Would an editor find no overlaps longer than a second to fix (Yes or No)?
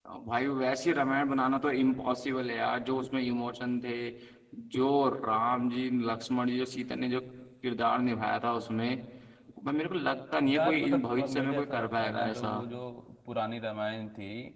No